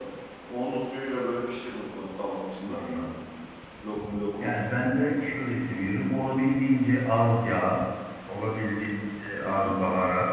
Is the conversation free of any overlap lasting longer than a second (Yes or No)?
Yes